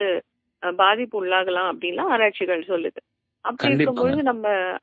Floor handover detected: No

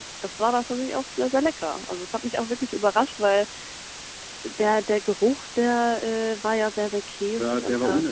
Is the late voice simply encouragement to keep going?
No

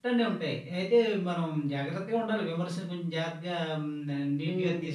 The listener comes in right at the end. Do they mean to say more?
Yes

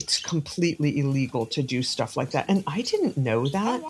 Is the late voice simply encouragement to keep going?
Yes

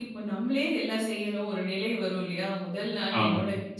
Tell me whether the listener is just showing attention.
Yes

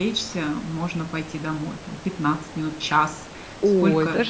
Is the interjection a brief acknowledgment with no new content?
No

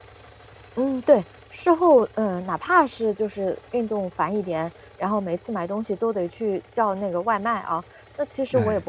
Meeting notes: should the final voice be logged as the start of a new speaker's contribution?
No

